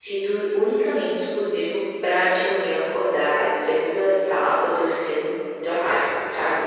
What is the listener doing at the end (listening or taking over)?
taking over